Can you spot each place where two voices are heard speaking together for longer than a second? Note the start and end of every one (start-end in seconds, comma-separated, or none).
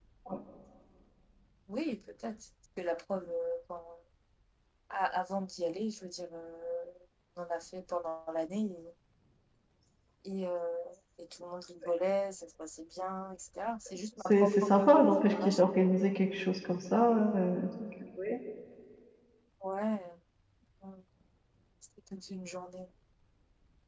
14.3-15.6